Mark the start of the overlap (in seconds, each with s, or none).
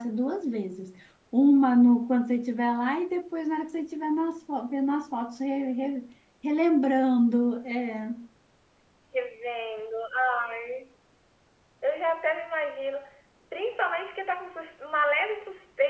none